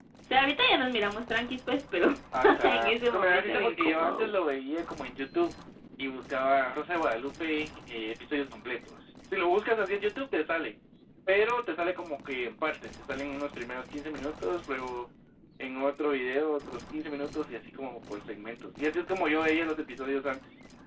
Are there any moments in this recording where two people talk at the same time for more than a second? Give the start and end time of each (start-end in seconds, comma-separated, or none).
2.6-4.3